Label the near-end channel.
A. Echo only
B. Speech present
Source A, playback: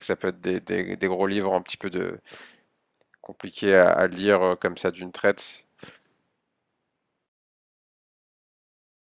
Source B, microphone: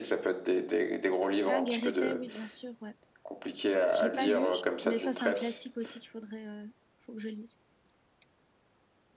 B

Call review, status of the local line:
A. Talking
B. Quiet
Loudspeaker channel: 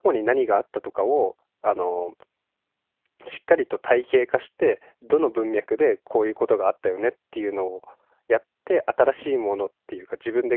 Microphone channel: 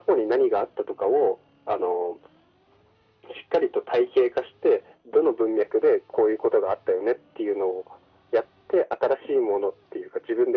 B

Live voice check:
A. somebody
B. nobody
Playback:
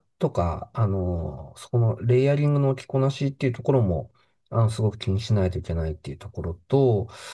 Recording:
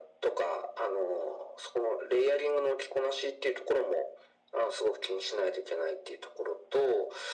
B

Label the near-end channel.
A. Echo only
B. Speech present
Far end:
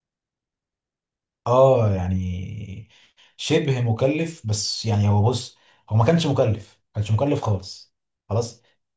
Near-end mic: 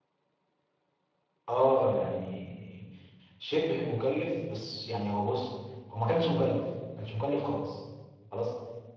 A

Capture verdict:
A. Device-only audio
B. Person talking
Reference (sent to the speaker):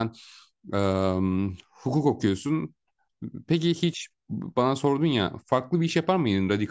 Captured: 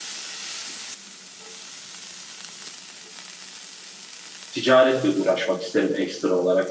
B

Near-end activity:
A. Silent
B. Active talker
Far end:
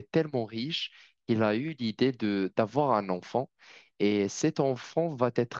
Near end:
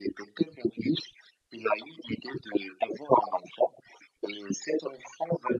A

